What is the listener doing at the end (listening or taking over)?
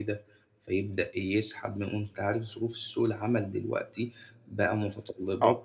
listening